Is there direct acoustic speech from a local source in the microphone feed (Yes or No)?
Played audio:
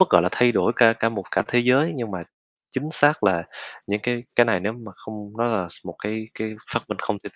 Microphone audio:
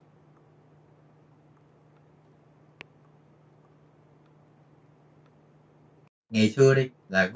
Yes